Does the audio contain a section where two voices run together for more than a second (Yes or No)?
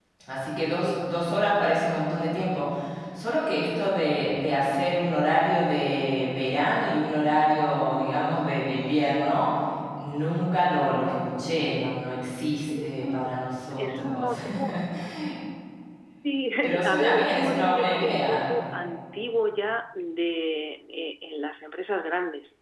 Yes